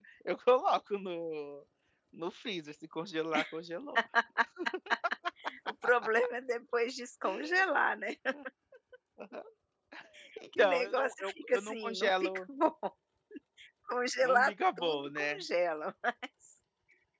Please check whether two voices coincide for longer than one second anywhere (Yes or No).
Yes